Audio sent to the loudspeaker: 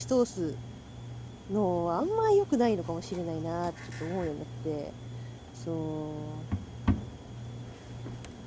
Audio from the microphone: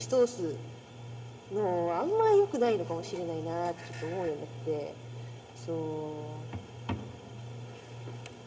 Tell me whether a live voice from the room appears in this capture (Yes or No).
No